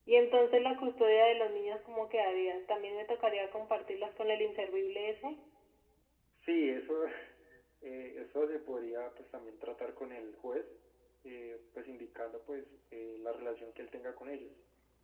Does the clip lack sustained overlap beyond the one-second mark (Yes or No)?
Yes